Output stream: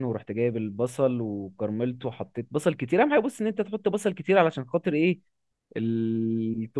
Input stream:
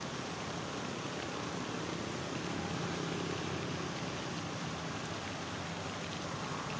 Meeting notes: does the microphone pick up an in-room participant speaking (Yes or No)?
No